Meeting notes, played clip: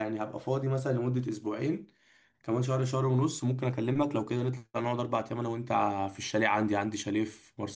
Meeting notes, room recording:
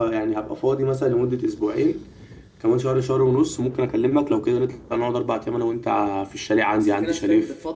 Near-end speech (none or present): present